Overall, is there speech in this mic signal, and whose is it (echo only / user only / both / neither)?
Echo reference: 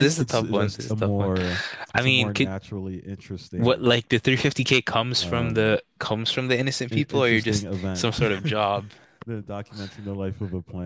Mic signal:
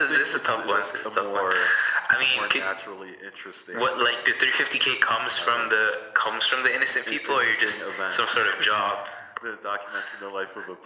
echo only